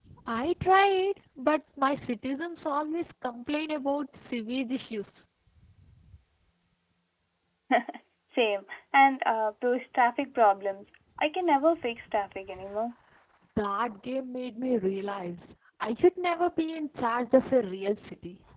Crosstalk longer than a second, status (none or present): none